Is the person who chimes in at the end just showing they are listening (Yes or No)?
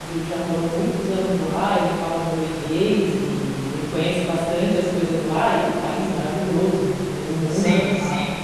No